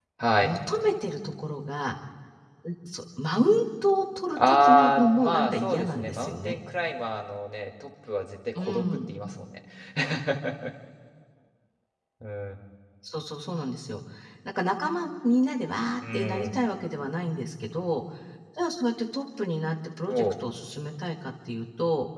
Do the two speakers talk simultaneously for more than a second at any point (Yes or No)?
Yes